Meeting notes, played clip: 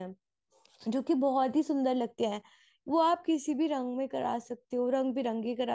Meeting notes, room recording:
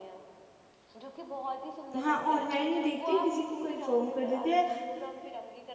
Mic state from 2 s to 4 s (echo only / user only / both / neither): both